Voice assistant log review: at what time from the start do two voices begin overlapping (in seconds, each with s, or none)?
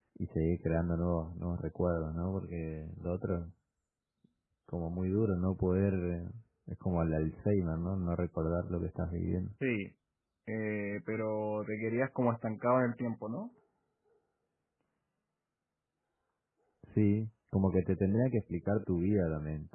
none